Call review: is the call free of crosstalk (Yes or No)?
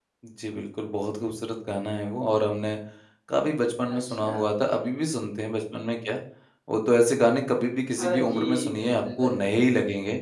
No